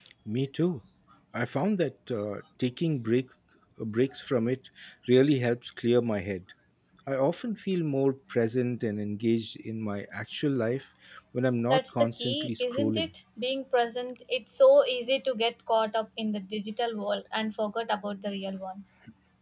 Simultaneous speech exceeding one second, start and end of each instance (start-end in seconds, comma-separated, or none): 11.7-13.1